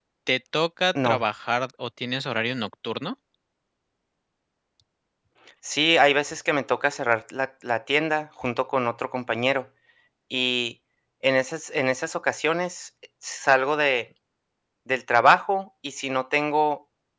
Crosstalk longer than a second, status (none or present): none